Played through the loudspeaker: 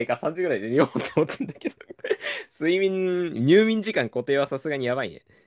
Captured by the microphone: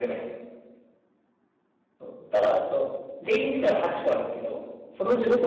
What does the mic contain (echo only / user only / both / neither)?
user only